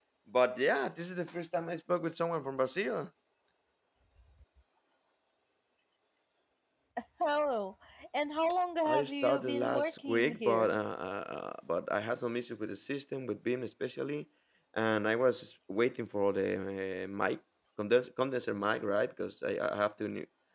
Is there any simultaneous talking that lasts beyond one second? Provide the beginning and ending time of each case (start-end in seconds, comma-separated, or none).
8.8-10.8